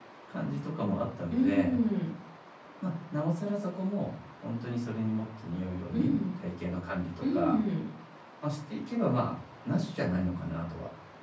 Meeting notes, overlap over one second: none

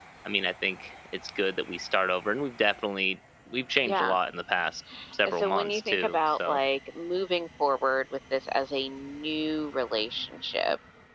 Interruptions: present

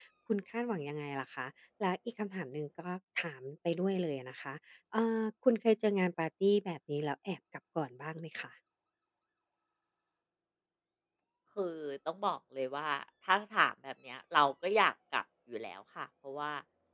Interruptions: none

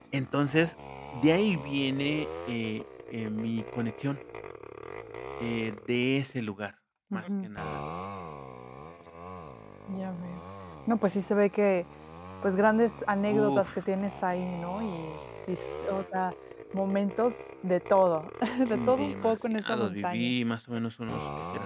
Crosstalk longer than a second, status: present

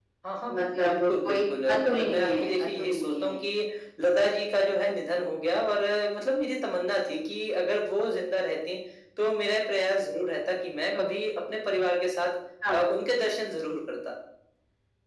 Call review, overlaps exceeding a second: present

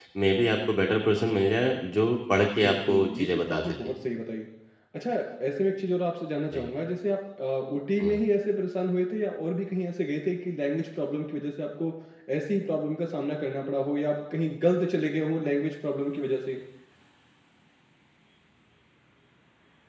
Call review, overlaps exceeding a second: present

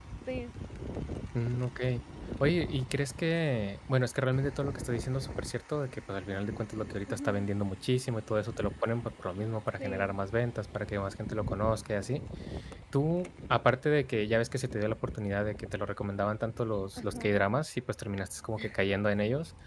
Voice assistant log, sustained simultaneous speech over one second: none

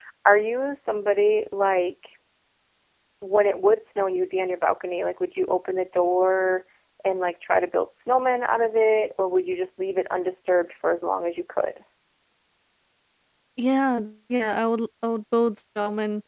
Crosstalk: none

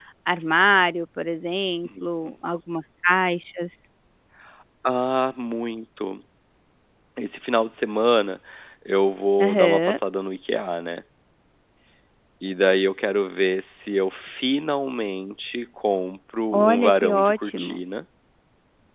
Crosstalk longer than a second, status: present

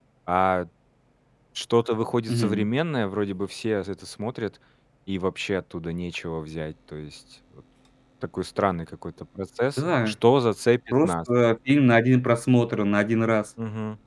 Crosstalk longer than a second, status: none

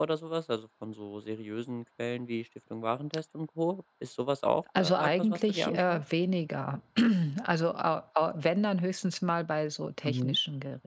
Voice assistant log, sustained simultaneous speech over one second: present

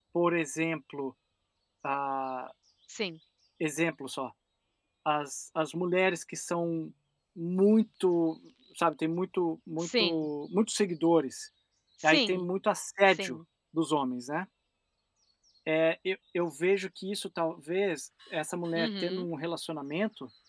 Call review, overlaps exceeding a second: none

